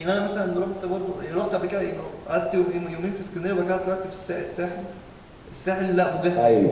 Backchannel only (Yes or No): Yes